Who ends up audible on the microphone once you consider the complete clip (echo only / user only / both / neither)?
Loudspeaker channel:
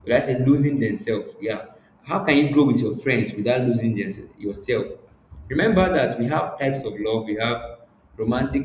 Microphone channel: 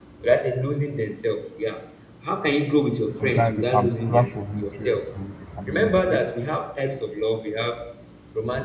both